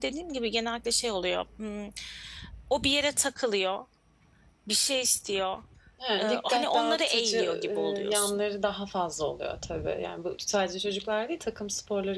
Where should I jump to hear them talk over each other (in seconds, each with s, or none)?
6.2 s